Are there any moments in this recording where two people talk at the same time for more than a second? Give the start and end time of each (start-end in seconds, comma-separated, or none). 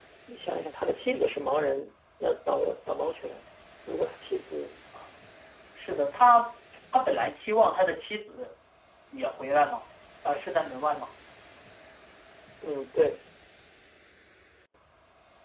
none